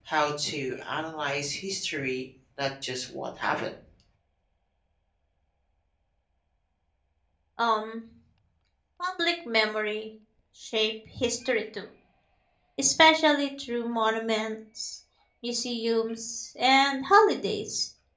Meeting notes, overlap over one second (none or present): none